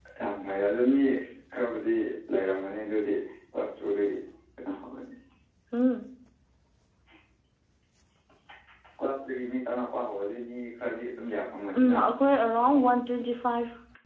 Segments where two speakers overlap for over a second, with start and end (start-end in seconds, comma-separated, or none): none